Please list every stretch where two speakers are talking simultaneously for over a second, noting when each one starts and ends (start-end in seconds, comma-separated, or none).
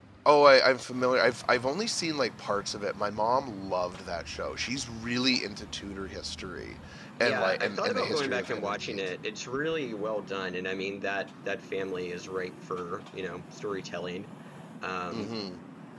7.2-9.0